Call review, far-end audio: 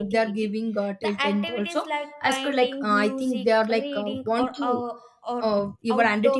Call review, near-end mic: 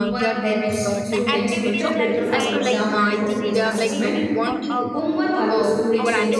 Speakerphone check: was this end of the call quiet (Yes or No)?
No